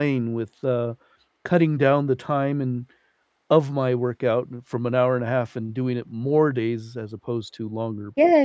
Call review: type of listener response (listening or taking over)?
taking over